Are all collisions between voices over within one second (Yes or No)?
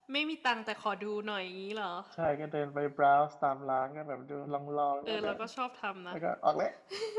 Yes